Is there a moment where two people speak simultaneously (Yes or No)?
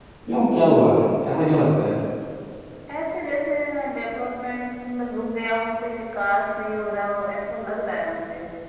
No